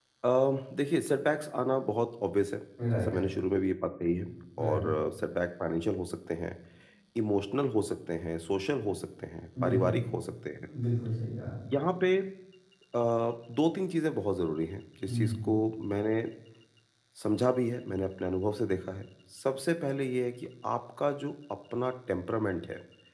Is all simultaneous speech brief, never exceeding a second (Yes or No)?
Yes